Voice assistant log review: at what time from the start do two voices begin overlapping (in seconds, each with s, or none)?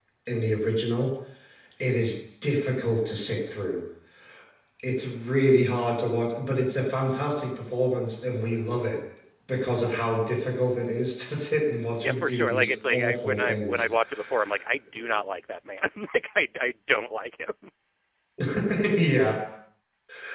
12.0 s